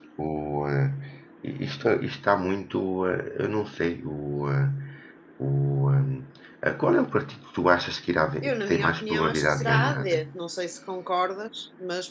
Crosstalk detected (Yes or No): Yes